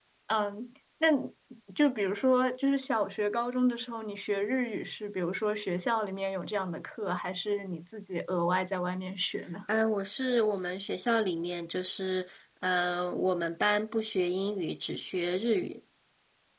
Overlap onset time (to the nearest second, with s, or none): none